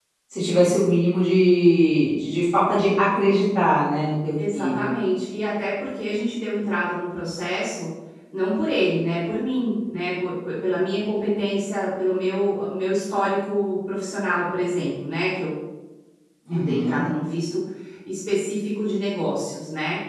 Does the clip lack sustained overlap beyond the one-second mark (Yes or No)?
Yes